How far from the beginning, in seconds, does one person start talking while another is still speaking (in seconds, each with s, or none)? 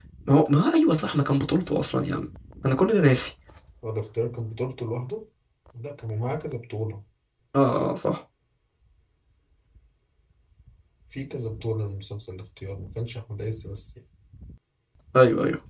none